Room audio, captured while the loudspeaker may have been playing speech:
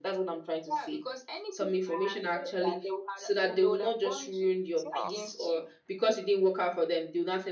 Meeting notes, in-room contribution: present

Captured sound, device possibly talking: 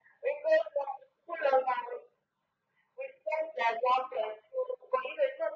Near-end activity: none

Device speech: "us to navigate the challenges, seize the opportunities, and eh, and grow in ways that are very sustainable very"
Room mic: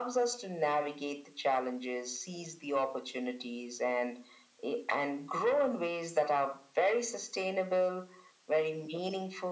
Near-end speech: none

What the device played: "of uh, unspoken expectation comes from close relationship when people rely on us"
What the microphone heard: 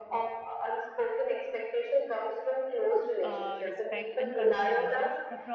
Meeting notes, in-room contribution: present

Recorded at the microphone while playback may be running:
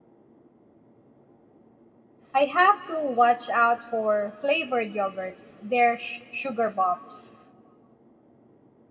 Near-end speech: present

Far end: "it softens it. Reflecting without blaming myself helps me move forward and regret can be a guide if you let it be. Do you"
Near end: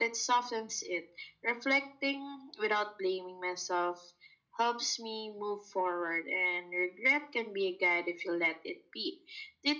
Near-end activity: none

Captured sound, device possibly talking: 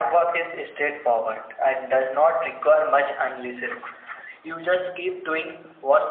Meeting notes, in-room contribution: none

